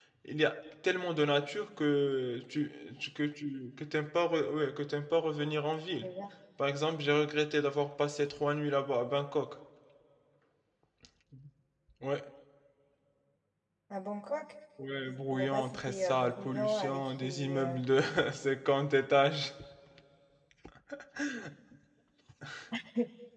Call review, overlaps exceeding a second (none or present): present